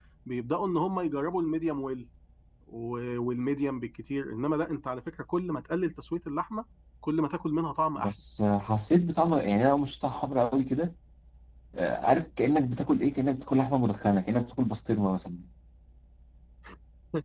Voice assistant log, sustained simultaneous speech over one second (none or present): none